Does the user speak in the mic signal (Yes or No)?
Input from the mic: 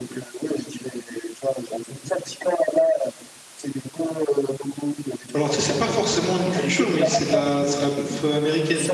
Yes